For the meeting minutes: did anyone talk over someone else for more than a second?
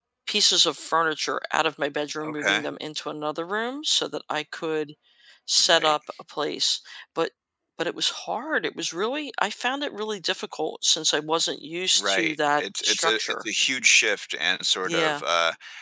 Yes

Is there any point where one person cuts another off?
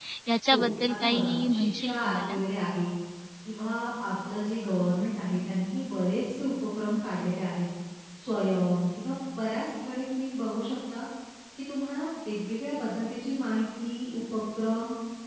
Yes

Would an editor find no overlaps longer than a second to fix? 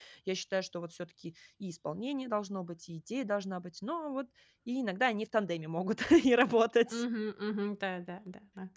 Yes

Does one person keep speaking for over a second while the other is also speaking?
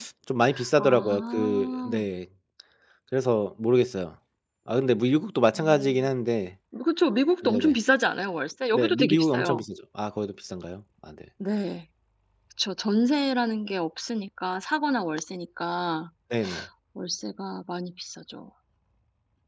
Yes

